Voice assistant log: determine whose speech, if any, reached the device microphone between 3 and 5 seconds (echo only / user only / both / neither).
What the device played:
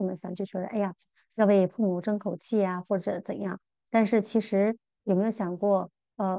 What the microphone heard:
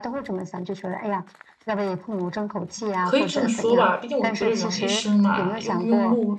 both